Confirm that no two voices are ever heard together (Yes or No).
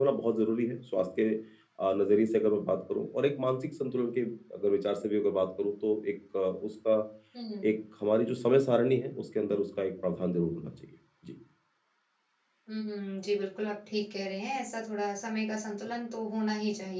Yes